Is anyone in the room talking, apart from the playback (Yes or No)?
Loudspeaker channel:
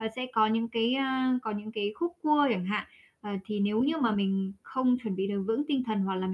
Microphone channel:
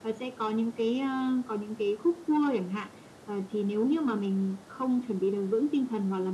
No